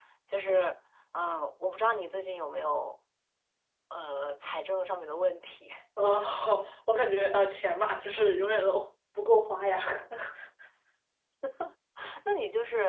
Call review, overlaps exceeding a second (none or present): none